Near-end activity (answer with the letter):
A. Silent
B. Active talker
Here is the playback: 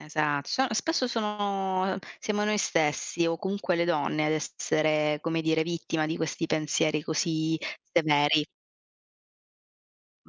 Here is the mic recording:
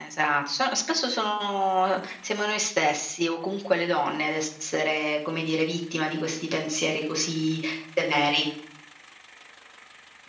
A